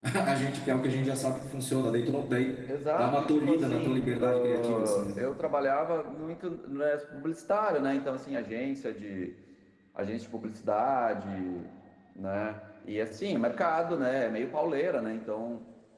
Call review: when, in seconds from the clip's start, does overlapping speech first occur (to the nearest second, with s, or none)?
3 s